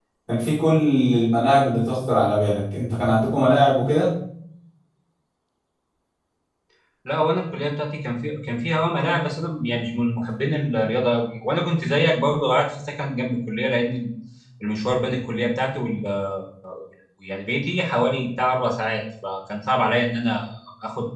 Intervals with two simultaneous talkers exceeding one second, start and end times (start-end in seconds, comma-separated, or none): none